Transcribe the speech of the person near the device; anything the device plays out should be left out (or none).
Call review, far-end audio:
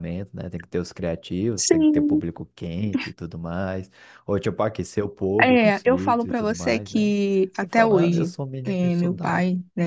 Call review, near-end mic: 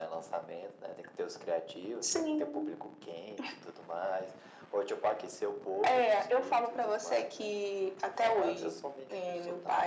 none